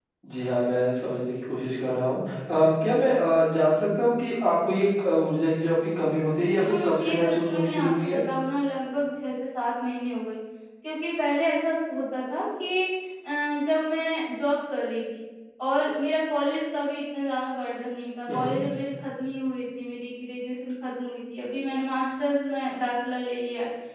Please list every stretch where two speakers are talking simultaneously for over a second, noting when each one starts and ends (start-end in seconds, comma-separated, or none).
6.5-8.2